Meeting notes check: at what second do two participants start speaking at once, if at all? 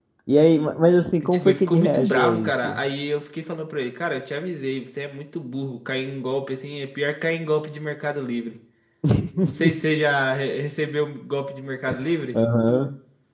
1.2 s

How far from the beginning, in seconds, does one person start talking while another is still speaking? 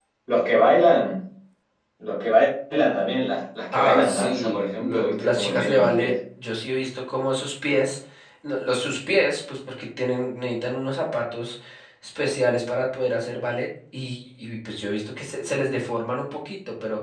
3.7 s

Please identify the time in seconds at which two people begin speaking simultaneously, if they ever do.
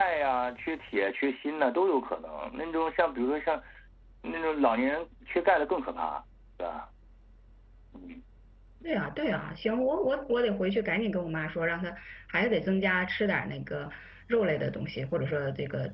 none

